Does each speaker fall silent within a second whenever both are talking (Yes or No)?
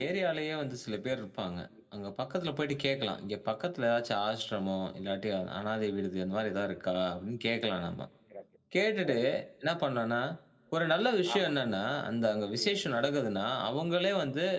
Yes